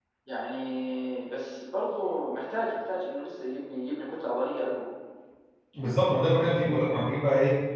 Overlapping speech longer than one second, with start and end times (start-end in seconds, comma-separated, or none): none